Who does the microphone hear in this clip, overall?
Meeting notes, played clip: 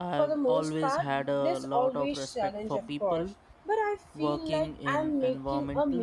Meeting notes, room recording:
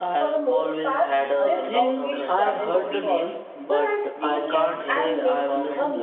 both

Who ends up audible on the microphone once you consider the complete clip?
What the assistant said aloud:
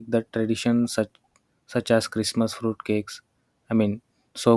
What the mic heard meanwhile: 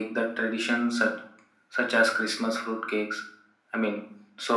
echo only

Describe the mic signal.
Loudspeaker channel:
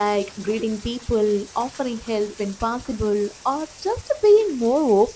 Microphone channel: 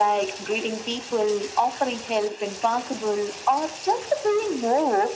echo only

